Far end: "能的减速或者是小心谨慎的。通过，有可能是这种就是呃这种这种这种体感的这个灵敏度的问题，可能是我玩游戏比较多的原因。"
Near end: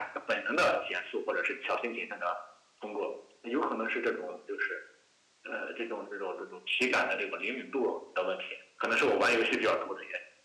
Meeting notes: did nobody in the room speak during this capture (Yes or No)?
Yes